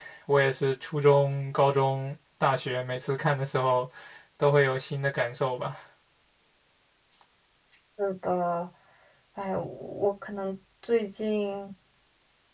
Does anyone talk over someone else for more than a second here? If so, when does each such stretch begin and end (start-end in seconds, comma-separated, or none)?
none